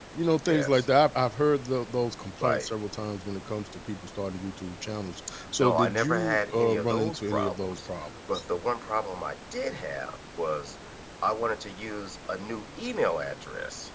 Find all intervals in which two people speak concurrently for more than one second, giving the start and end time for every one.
5.6-7.8

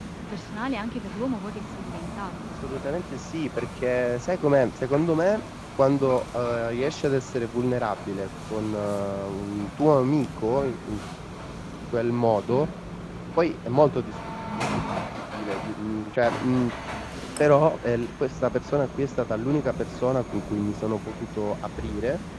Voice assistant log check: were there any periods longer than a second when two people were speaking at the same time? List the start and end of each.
none

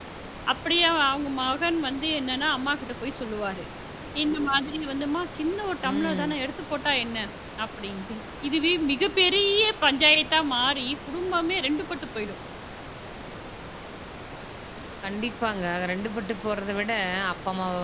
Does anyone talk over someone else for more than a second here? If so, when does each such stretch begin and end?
none

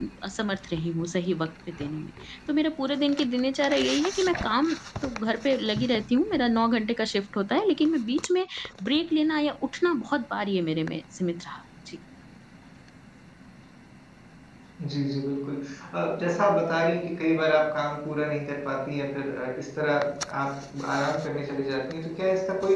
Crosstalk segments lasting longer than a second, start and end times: none

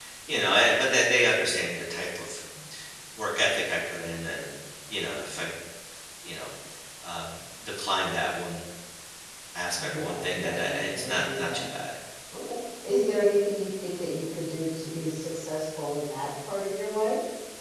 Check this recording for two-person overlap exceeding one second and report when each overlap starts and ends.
9.9-11.6

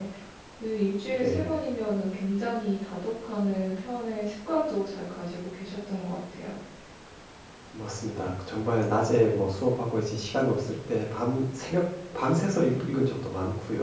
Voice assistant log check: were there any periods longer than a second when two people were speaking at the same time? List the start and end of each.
none

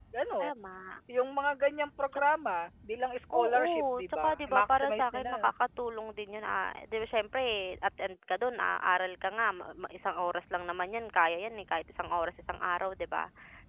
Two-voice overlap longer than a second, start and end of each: 3.3-5.5

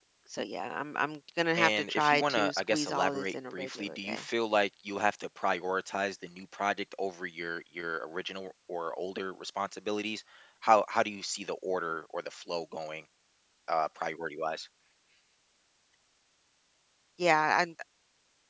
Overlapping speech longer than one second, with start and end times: 1.6-4.2

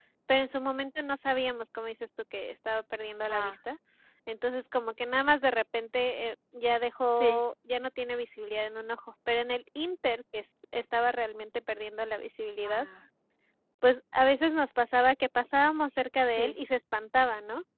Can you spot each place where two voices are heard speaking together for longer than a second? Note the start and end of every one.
none

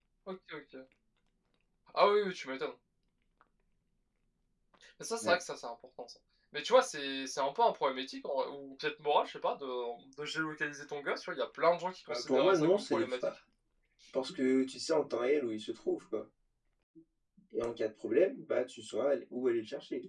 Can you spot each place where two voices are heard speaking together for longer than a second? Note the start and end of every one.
12.1-13.3

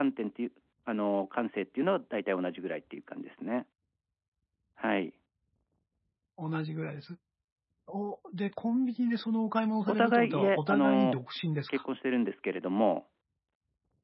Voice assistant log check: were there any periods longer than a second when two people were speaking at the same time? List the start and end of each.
9.9-11.2

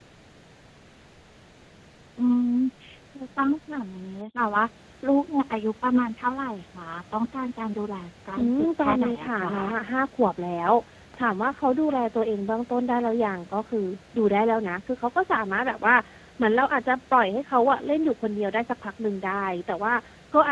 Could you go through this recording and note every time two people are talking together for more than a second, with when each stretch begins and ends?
8.4-9.6

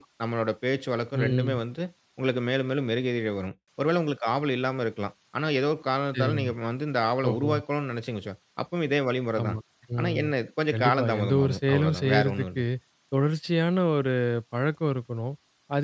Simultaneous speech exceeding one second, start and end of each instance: 10.7-12.6

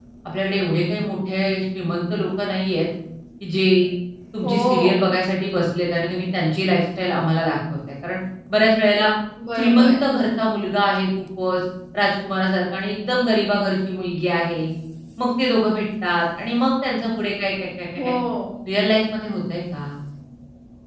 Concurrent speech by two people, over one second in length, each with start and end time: none

